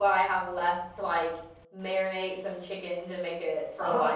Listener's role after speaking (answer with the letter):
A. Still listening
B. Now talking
B